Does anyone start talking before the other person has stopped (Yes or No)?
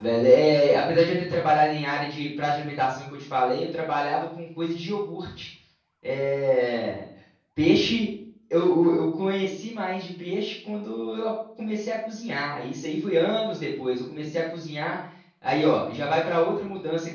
No